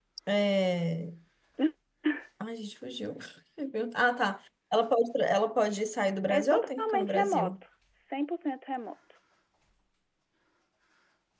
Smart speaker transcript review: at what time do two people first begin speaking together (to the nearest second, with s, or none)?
6 s